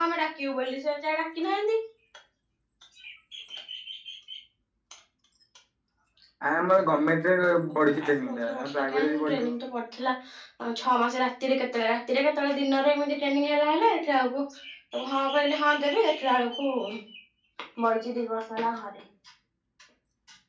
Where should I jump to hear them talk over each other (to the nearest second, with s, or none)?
8 s